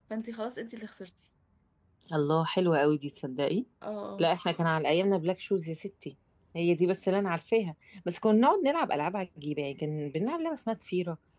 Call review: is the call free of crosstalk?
Yes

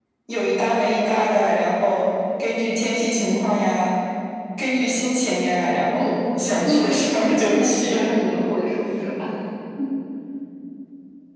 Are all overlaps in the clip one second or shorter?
No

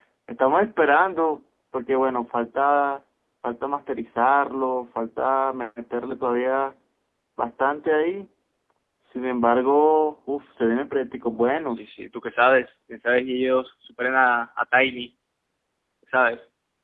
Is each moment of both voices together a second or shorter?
Yes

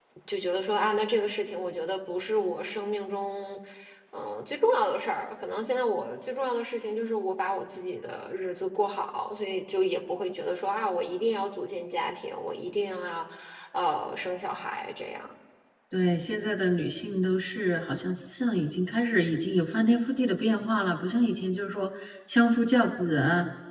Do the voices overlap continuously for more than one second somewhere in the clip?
No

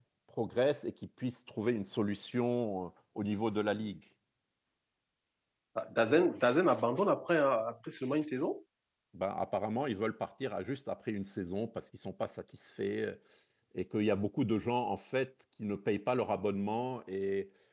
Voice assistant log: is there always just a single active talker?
Yes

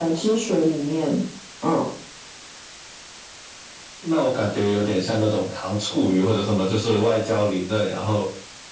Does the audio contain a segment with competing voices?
No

